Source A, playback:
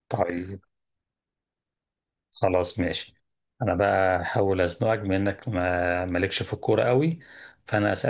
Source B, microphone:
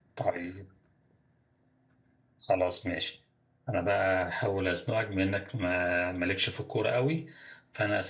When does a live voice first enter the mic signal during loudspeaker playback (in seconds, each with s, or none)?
none